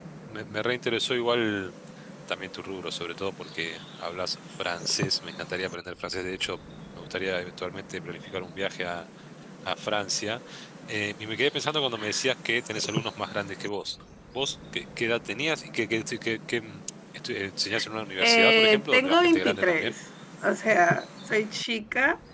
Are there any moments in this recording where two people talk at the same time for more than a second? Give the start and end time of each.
18.2-19.9

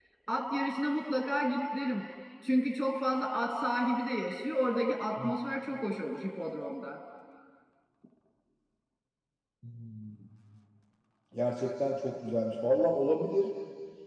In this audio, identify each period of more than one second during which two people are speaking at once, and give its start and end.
none

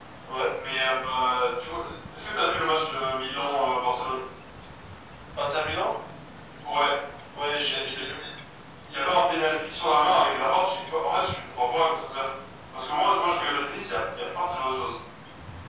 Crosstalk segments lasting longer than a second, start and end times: none

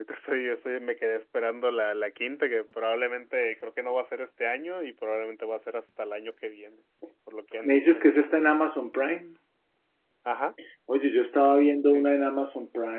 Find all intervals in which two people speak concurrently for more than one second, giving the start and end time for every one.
none

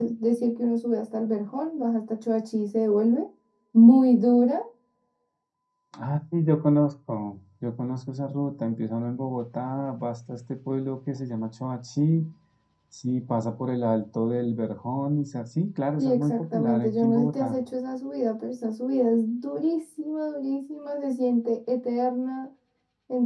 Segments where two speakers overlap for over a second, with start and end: 16.0-17.6

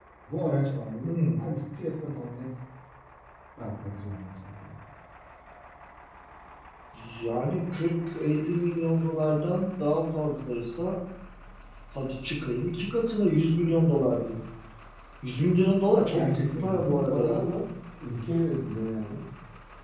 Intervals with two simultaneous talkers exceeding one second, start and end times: 16.1-17.5

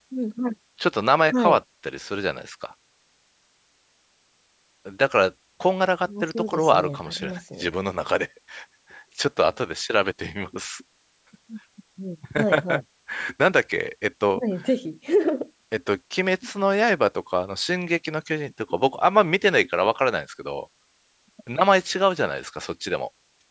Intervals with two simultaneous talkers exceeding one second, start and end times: 6.2-7.7

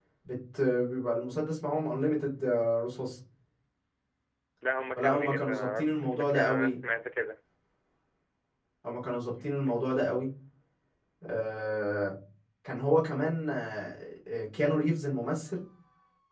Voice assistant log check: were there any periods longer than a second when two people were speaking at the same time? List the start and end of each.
5.0-6.8

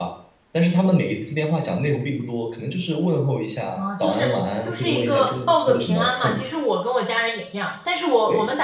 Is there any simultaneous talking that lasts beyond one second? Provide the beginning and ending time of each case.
4.6-6.4

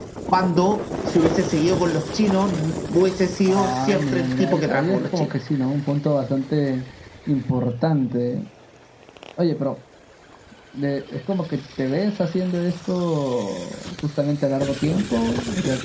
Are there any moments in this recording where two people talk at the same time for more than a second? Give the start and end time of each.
3.5-5.3

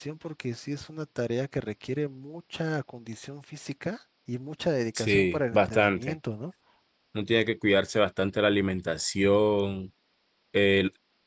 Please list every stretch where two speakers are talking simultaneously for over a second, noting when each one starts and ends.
5.0-6.2

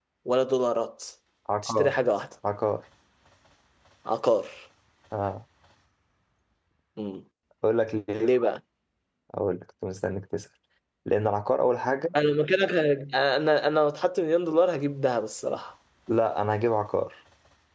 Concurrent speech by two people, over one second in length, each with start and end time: none

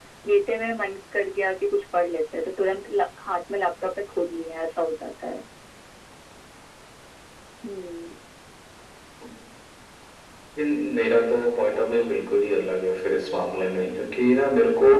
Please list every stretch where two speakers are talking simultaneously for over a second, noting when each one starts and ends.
none

